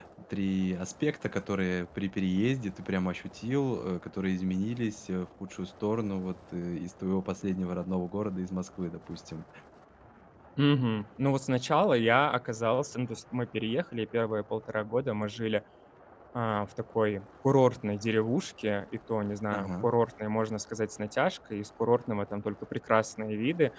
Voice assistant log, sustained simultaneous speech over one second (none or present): none